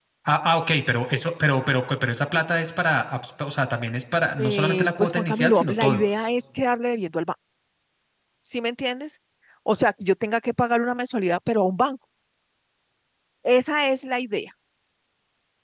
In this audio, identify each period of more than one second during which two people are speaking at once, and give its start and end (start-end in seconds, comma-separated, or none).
4.4-6.0